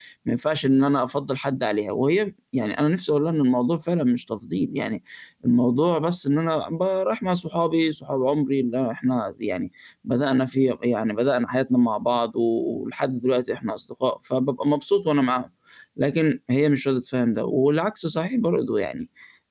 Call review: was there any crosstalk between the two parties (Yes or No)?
No